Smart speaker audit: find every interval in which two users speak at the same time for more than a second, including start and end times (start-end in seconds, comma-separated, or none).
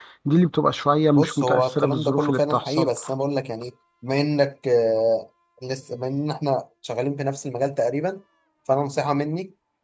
1.2-2.9